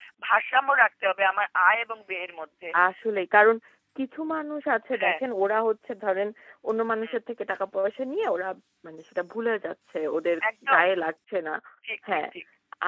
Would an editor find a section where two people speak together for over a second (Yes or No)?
No